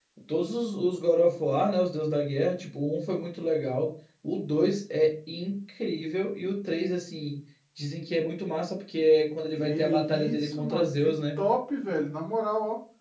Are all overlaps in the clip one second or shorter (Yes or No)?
No